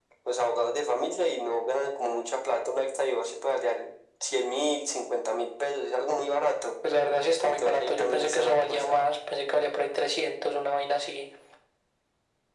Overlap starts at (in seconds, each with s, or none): 7.4 s